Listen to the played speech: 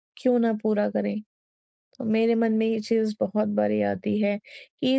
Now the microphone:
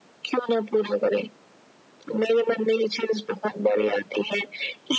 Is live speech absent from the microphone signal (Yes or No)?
Yes